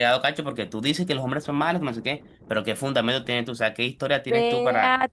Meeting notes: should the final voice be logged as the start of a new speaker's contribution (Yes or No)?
Yes